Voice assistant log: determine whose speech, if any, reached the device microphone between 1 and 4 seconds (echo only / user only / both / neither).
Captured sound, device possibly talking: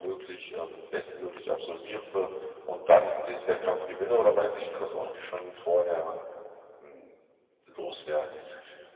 echo only